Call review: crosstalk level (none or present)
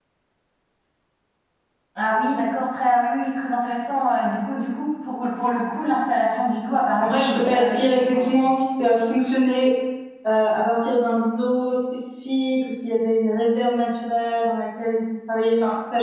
present